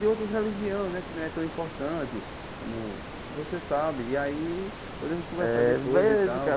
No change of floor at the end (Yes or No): No